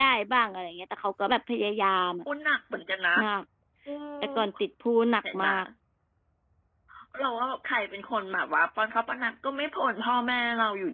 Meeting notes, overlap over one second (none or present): none